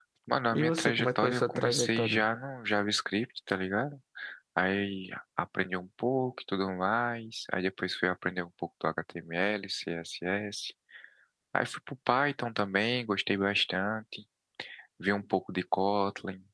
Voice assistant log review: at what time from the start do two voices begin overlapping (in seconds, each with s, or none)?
0.5 s